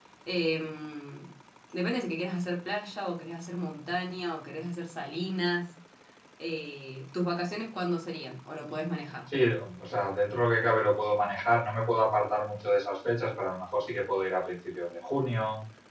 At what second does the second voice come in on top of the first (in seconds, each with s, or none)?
none